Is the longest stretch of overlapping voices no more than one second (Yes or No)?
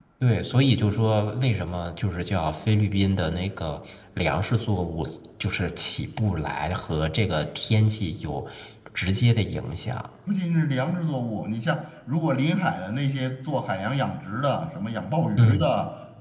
Yes